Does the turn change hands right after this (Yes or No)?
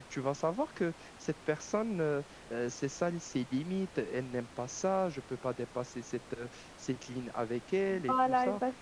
Yes